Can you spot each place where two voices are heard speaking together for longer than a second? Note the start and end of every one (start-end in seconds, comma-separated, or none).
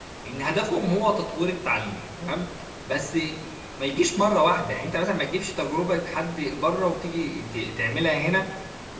none